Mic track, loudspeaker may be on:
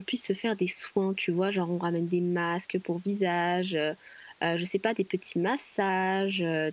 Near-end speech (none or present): present